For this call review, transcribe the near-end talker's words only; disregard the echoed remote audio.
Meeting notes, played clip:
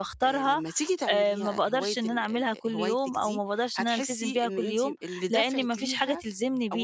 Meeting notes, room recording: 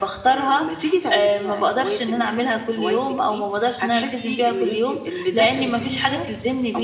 none

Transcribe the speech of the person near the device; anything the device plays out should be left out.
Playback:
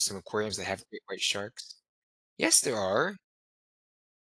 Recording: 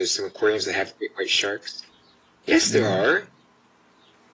Yeah.

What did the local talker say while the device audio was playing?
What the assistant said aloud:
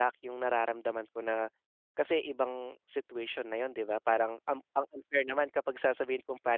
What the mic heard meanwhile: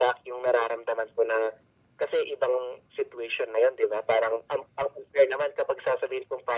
none

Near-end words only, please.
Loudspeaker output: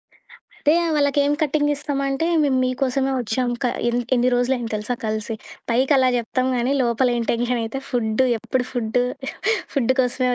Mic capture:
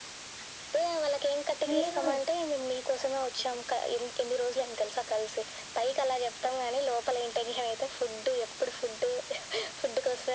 లేదు.

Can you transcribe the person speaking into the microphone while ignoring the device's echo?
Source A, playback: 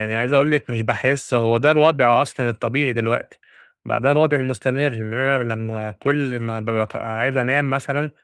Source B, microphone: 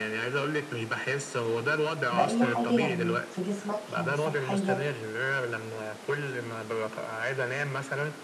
بأي حاجة يعني في جسمك؟ يعني صحيًا،

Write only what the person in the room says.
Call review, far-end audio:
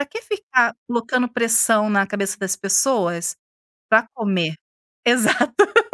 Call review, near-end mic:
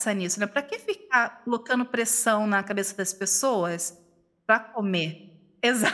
none

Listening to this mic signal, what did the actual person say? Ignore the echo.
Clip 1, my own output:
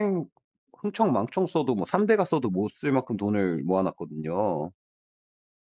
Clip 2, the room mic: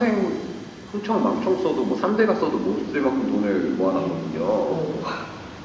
예. 오.

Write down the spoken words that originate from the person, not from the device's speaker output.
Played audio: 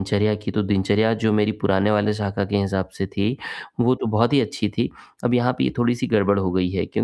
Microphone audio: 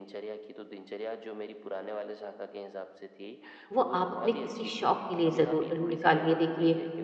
वो आप अपने किसी शौक के लिए ज़रूर निकालिए देखिए।

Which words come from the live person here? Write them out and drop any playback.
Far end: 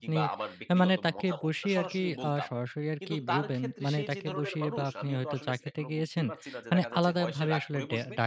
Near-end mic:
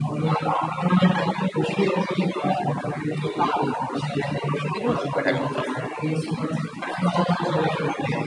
এগুলো কিভাবে ঠেকানো যায়?

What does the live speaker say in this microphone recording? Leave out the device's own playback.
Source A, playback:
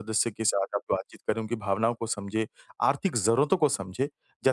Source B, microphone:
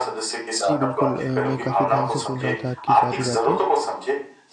जी, बिल्कुल। अ, मैं काफ़ी ध्यान से सुन रहा था आपकी सारी बातें।

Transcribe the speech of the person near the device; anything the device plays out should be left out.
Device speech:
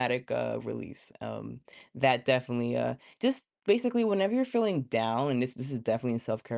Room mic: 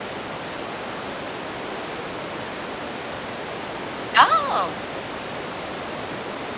Oh,

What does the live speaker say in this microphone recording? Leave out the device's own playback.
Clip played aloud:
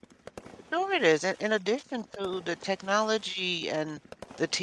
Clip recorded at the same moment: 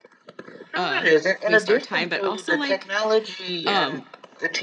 uh waste our time but also like um

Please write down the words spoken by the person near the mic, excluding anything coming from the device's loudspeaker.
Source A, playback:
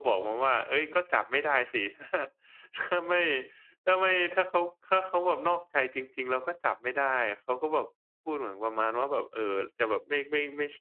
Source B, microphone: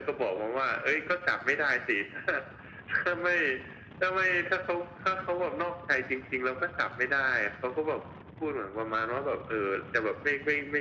none

